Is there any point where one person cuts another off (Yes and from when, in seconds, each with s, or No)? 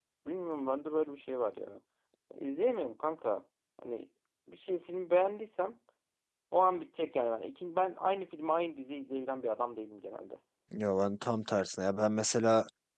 No